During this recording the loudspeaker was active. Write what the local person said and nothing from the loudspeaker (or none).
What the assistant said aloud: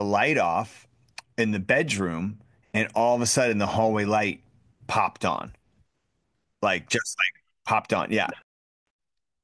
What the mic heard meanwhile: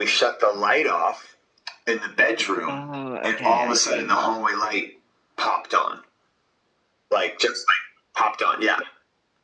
Oh, okay, I see.